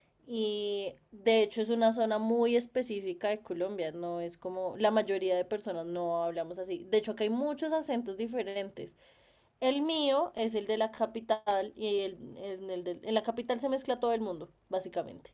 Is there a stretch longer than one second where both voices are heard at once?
No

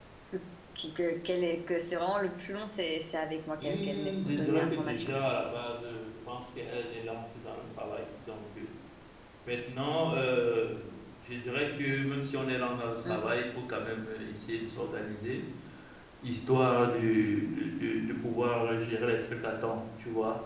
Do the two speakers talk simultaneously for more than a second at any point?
Yes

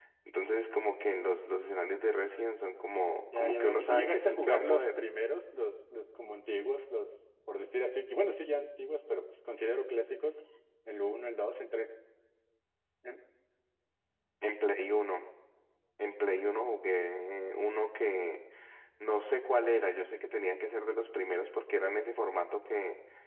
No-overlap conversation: No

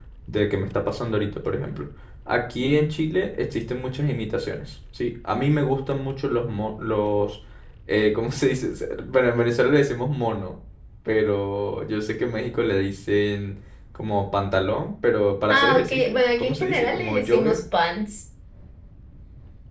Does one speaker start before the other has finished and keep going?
Yes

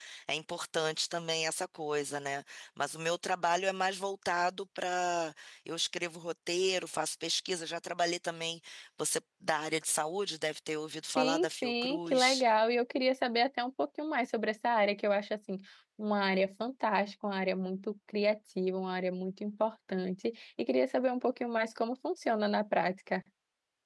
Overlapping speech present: Yes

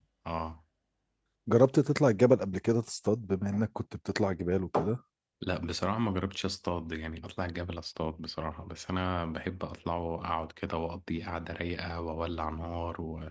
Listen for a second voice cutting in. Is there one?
No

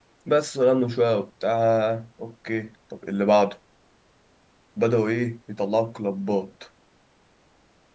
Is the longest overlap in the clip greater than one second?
No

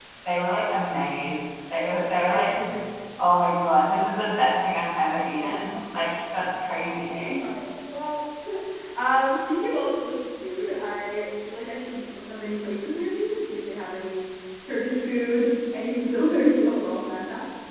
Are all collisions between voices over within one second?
Yes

